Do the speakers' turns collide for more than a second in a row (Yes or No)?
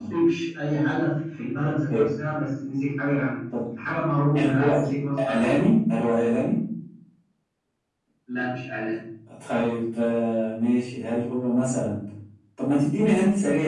No